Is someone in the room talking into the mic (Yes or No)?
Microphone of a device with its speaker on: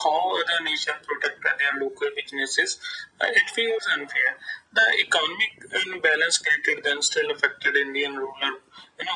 No